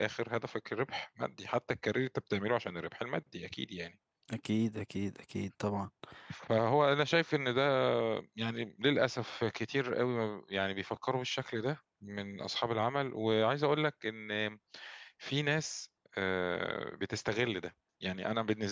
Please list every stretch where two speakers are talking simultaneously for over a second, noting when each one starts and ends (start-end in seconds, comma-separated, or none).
none